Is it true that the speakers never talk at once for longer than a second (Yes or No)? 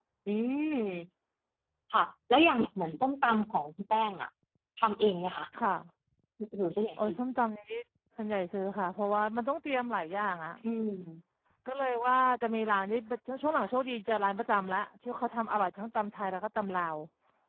Yes